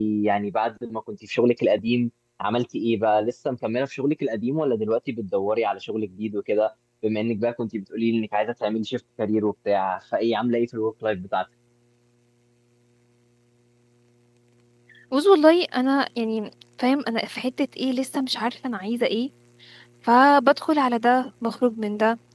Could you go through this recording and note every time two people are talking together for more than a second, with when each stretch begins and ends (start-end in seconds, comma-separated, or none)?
none